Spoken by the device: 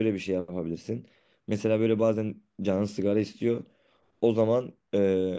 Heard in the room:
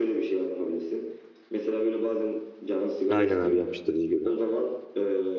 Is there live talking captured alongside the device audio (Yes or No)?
Yes